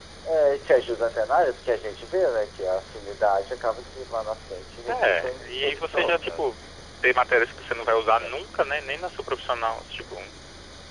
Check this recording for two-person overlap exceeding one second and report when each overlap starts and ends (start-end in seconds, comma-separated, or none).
4.9-6.5